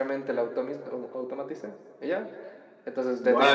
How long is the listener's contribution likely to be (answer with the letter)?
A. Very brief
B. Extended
B